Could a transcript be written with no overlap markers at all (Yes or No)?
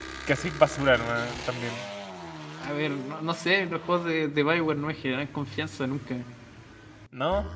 Yes